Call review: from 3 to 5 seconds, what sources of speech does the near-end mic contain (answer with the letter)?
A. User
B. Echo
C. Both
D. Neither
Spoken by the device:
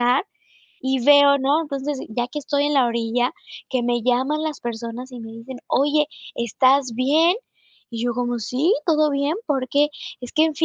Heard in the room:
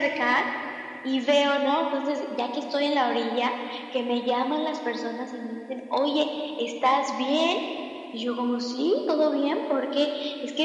B